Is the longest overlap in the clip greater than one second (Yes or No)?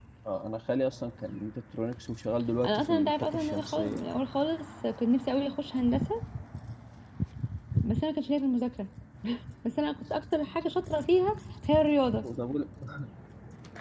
Yes